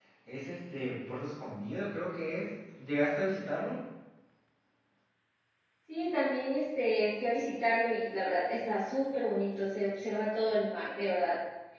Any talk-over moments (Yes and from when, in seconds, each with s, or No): No